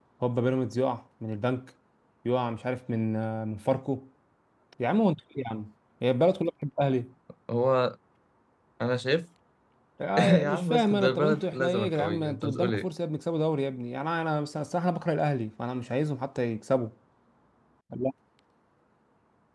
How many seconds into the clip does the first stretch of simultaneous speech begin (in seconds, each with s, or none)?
10.2 s